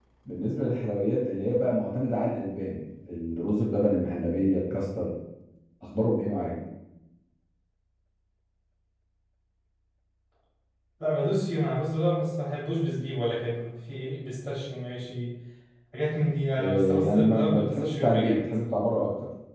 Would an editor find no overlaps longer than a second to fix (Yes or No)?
No